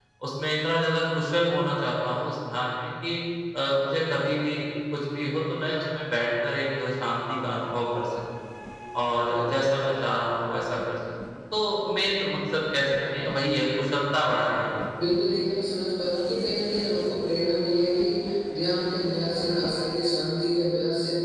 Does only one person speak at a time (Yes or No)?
Yes